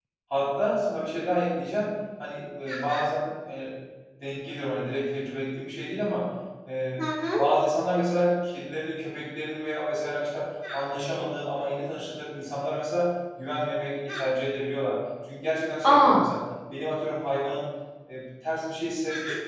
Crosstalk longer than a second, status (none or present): none